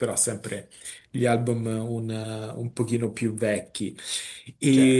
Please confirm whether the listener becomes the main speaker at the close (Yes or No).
No